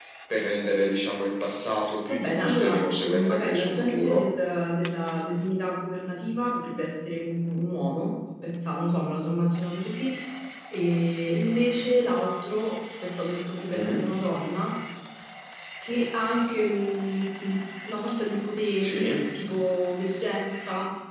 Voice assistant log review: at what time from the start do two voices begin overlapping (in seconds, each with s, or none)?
2.1 s